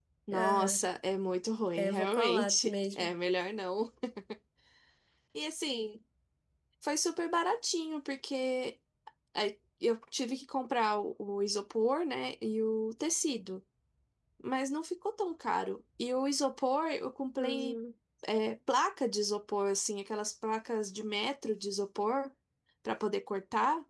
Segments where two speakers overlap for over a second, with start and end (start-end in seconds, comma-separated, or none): 1.8-3.1